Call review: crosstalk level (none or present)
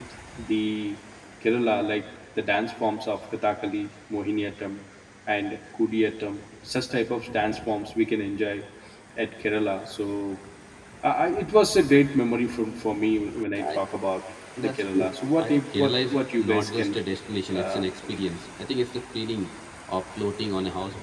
present